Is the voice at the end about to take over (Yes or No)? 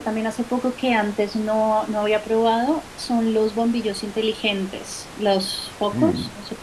Yes